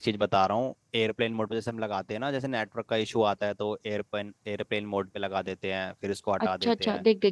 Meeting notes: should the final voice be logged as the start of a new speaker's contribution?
Yes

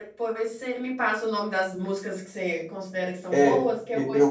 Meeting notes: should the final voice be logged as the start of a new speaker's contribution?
Yes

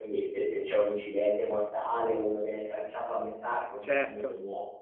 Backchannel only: Yes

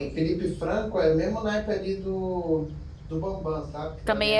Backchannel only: No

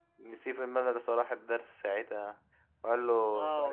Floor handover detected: Yes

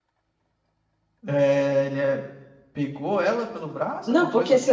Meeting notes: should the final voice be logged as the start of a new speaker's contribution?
Yes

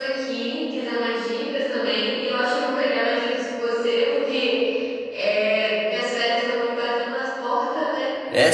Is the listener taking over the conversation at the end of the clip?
Yes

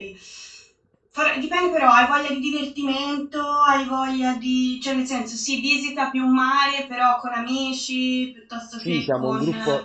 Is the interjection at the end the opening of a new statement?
Yes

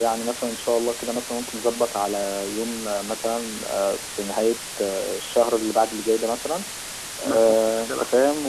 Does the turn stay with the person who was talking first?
Yes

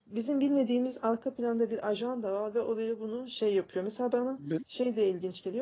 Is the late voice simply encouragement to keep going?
Yes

